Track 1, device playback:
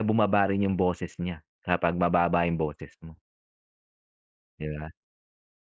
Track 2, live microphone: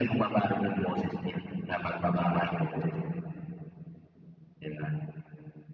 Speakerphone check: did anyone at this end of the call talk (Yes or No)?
No